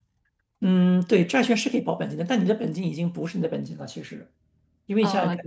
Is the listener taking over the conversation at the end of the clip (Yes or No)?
No